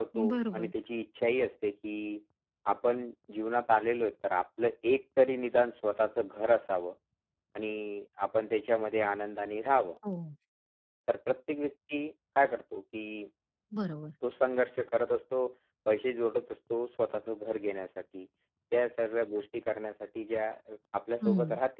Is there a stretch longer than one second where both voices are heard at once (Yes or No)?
No